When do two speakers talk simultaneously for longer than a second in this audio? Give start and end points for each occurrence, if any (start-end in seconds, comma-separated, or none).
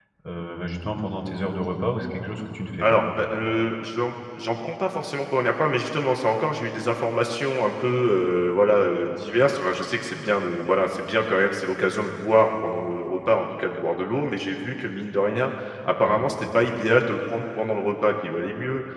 none